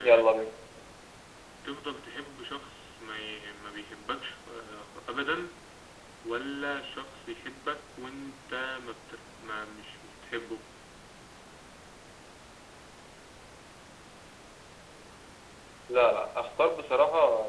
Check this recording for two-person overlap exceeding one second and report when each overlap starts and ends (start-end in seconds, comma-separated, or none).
none